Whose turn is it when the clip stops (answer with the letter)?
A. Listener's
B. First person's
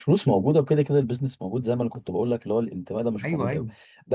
B